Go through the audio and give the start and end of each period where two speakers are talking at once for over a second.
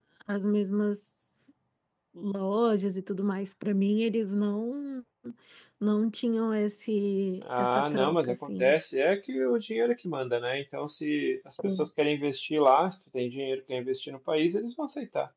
7.4-8.7

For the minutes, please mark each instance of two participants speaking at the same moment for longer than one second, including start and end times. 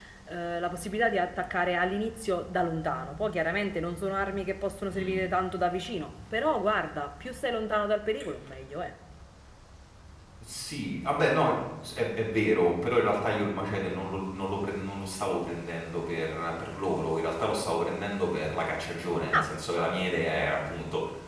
none

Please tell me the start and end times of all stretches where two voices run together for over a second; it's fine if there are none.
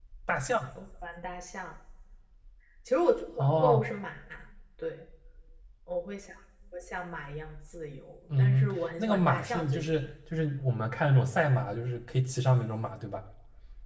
8.4-10.1

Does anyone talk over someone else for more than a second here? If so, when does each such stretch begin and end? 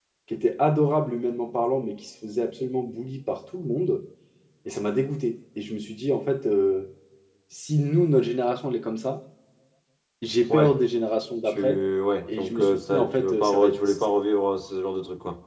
12.3-13.8

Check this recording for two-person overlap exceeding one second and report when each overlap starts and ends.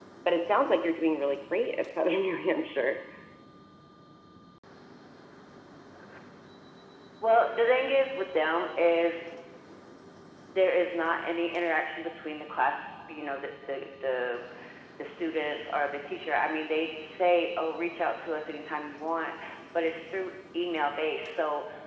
none

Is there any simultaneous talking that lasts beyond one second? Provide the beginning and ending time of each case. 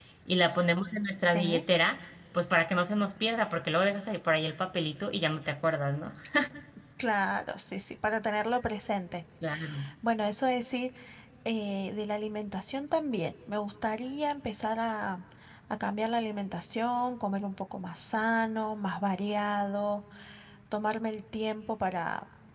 none

